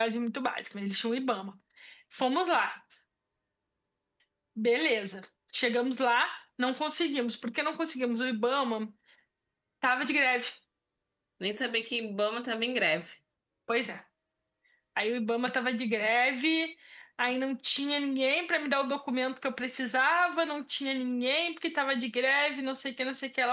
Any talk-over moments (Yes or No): No